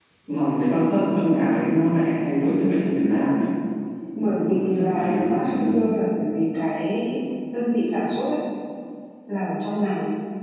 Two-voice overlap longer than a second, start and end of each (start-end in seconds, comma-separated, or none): 4.2-5.7